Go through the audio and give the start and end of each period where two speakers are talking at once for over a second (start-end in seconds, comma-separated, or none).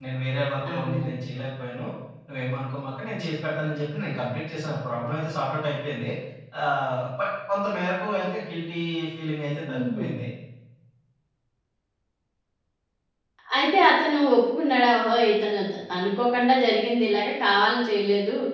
none